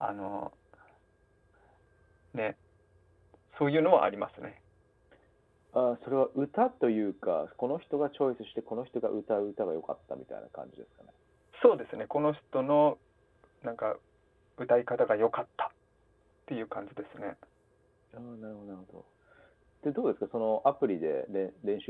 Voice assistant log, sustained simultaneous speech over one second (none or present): none